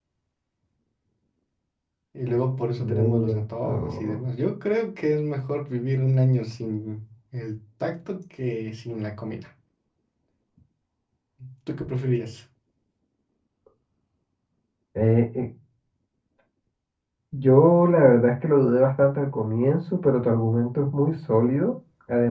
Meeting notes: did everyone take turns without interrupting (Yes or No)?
No